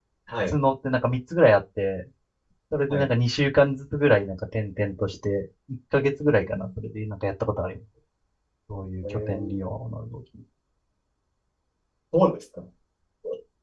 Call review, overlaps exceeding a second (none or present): none